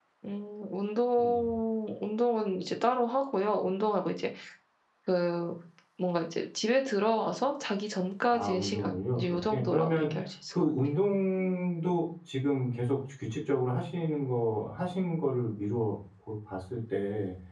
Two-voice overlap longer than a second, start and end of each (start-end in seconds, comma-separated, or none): 8.3-10.1